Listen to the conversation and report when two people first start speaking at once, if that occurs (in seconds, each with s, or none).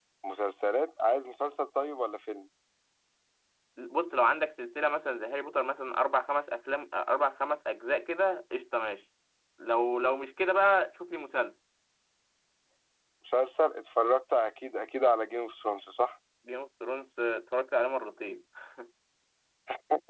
none